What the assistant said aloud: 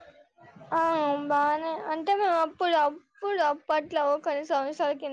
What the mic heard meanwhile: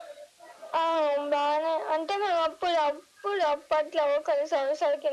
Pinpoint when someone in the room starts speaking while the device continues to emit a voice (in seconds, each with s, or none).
none